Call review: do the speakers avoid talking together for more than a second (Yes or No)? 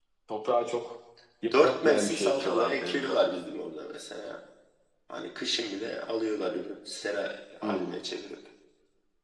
No